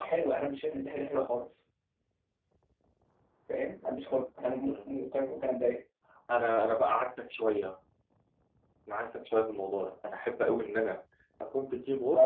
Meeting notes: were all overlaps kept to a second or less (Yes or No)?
Yes